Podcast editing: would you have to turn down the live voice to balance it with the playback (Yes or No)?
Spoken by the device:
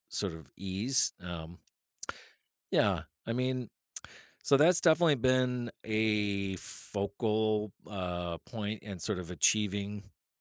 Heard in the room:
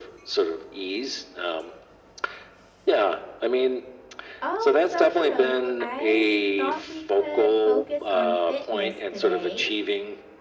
No